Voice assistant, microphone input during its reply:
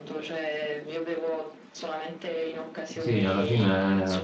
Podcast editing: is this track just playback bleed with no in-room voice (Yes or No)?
No